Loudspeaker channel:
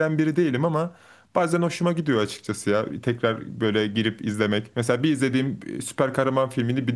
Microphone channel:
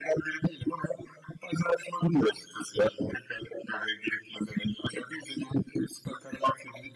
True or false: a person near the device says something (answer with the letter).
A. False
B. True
A